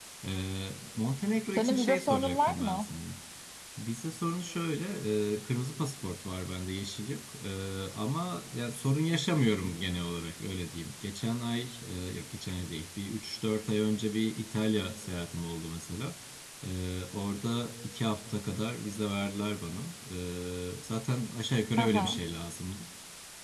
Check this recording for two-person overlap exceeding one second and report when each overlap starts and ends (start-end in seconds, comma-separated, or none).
1.6-2.9